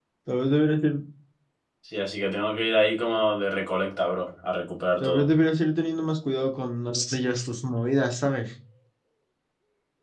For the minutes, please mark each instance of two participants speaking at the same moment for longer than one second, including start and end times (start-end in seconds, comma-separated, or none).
none